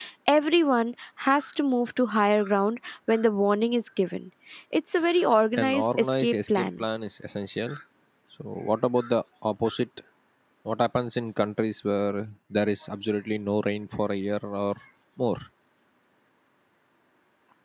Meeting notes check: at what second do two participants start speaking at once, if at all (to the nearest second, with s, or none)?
6 s